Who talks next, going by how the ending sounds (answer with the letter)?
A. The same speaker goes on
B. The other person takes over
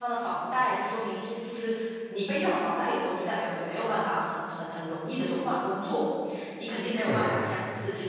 A